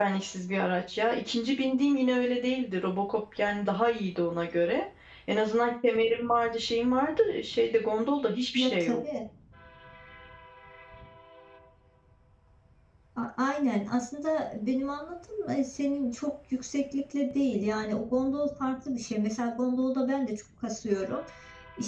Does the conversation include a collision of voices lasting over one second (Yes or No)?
No